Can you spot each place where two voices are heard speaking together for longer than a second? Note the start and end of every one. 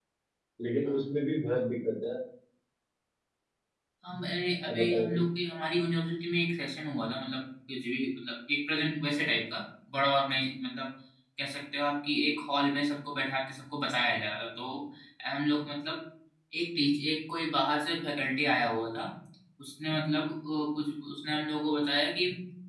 none

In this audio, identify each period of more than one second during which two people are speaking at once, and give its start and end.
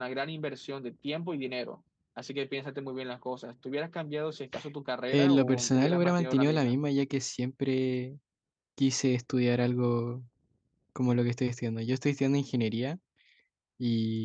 5.1-6.8

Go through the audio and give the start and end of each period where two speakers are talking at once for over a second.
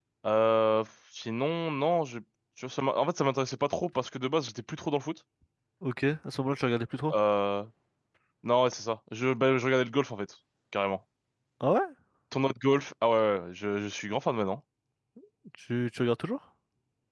none

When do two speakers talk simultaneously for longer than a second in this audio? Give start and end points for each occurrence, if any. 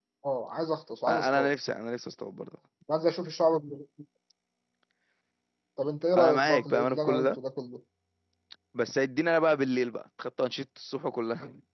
6.2-7.4

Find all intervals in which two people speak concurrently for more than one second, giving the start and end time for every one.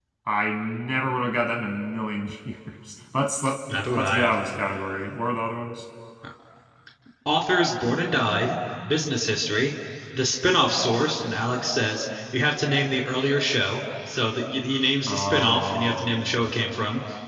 15.1-16.5

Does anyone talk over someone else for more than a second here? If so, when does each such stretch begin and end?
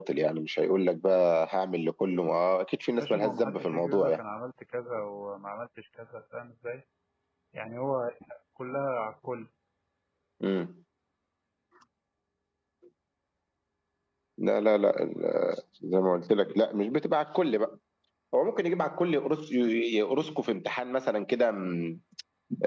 3.0-4.2

